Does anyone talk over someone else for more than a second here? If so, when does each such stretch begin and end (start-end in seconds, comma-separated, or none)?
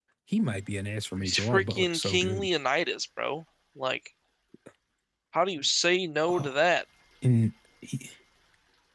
1.2-2.5